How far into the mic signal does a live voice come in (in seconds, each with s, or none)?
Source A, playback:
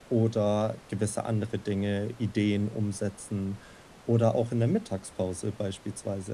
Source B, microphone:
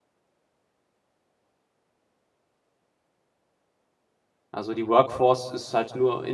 4.5 s